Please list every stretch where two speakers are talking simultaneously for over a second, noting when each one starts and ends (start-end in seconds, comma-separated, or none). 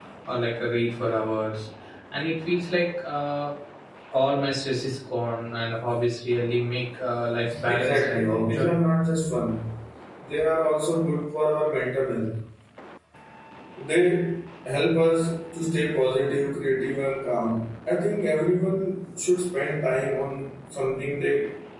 7.7-8.9